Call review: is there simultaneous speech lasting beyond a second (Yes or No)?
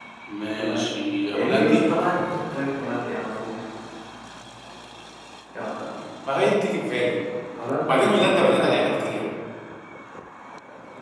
Yes